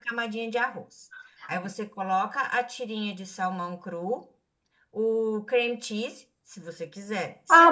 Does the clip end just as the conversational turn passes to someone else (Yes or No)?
Yes